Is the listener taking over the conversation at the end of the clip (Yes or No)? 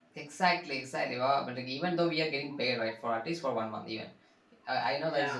No